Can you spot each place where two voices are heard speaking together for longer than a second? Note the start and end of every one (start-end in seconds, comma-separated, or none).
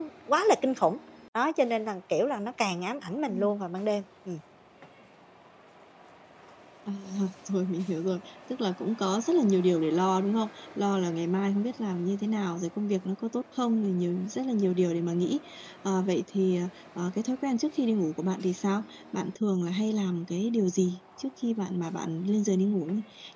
none